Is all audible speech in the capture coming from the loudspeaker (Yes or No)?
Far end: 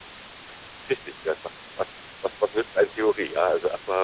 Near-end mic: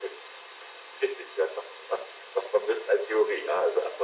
Yes